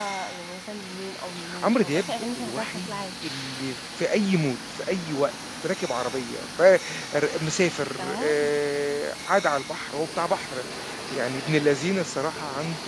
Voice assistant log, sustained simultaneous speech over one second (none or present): present